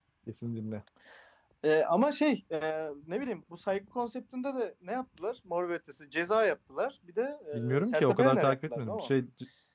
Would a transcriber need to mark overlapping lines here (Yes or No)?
Yes